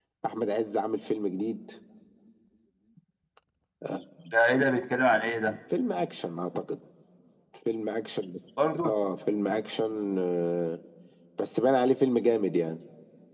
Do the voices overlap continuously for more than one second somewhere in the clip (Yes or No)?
No